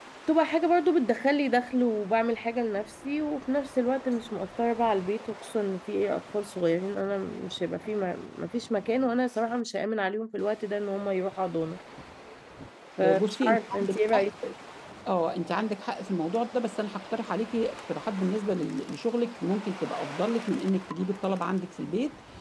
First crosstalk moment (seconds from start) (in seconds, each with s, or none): 13.0 s